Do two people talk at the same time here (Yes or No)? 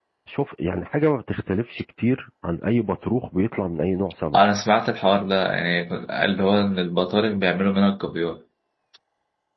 No